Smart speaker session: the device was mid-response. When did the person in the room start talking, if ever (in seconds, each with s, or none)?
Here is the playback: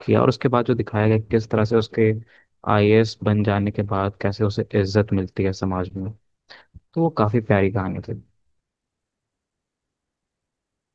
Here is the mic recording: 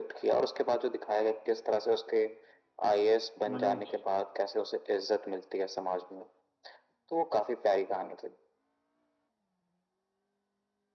3.5 s